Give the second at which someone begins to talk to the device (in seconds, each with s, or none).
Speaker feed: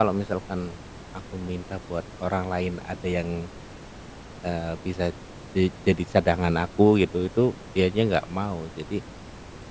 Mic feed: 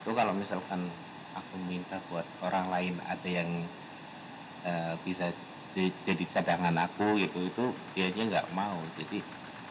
none